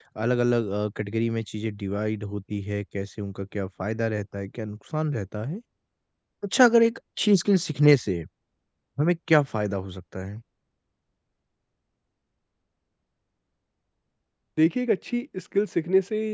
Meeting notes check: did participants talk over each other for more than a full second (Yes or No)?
No